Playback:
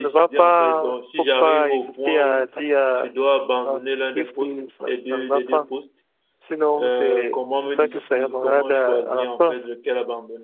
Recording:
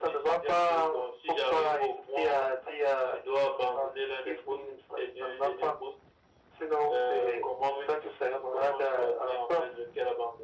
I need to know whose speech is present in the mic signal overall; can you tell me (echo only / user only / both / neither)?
echo only